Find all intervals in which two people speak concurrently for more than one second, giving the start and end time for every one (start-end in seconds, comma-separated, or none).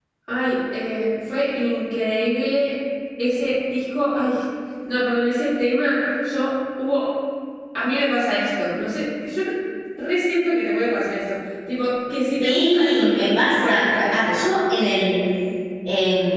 12.4-14.3